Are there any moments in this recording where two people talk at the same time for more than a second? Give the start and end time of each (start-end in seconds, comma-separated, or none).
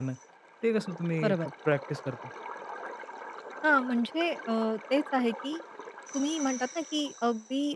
none